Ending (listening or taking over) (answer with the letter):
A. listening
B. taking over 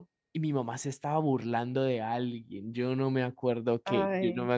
A